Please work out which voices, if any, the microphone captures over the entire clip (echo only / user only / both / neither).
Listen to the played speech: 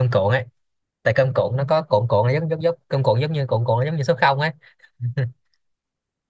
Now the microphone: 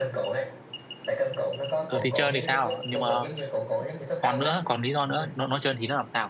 both